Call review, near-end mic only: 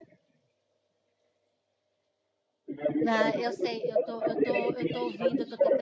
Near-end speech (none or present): present